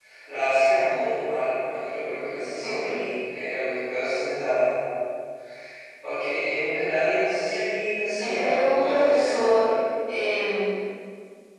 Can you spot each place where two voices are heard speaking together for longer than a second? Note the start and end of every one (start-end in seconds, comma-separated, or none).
8.2-9.7